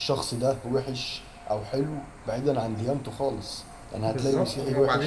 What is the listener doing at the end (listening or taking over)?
taking over